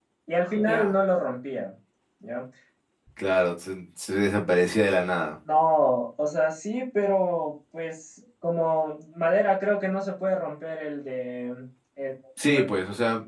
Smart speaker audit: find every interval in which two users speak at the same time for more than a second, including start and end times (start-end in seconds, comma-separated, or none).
none